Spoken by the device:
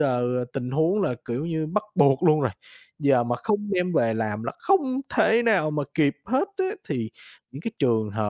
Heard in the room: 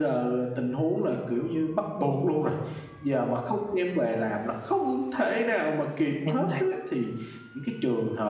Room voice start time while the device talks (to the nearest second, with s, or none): 6 s